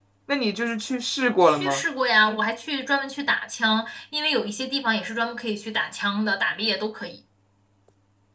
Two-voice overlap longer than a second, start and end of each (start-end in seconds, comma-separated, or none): none